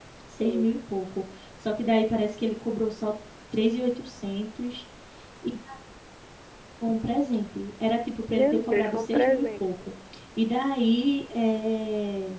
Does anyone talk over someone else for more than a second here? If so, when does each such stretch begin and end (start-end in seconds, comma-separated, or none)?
8.3-9.7